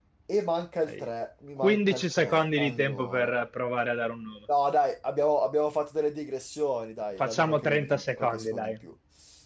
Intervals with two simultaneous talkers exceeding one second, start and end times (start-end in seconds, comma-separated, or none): 1.6-3.3, 7.2-8.7